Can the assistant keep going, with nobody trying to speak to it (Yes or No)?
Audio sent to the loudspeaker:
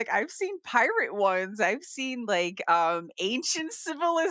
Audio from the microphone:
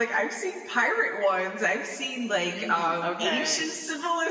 No